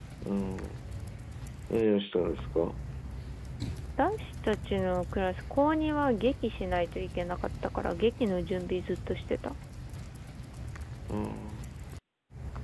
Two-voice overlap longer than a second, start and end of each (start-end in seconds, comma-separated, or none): none